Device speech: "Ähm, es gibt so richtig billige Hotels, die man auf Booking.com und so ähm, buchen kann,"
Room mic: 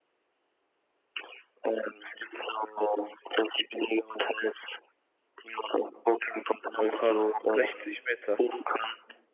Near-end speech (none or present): present